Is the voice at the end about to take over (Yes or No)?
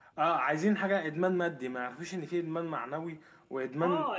Yes